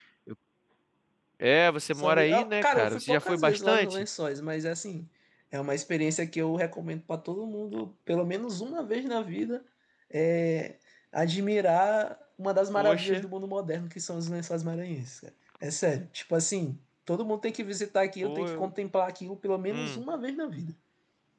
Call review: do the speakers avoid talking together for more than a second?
No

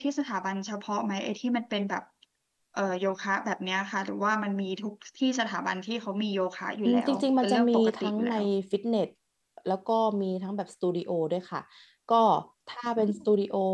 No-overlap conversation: No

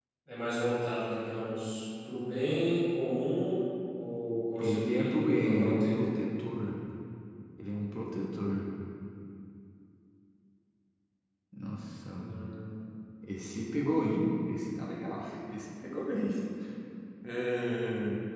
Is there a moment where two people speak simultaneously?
Yes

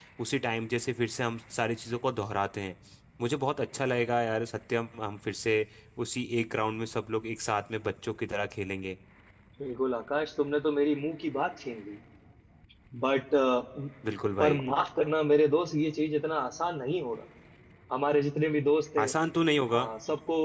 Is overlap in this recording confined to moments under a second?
Yes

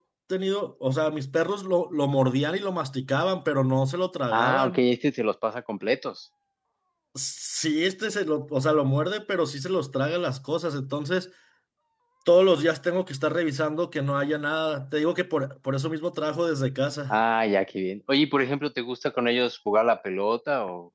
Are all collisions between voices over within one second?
Yes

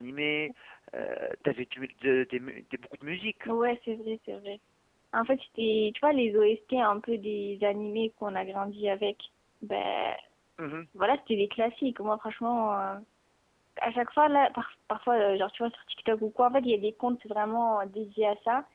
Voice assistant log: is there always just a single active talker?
Yes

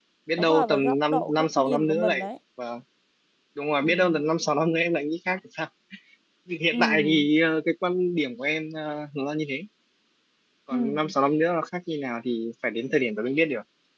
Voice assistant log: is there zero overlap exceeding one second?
No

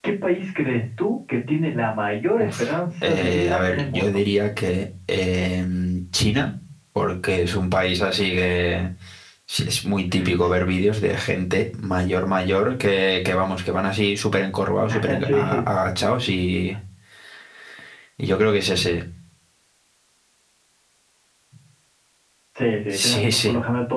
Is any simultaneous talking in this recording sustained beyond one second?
Yes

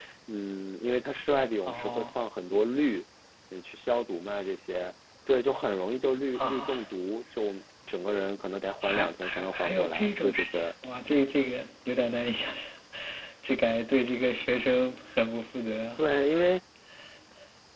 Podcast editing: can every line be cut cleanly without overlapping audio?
No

